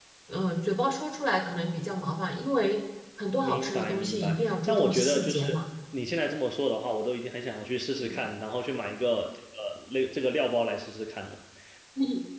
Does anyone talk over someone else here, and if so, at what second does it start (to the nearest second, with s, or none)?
3 s